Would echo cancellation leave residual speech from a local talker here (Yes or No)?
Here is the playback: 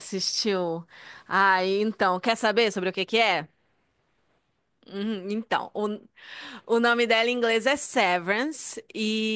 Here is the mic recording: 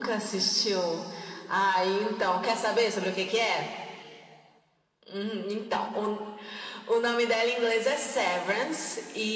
No